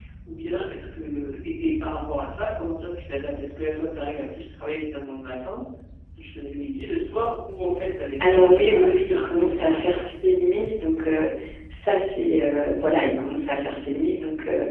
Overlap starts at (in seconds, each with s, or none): 8.2 s